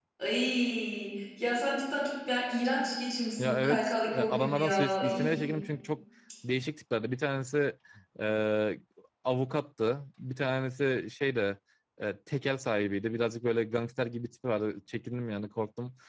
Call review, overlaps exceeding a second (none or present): present